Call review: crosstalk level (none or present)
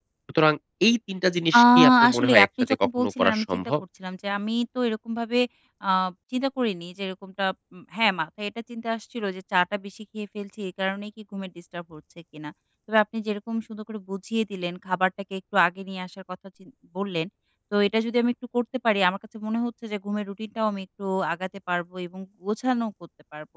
present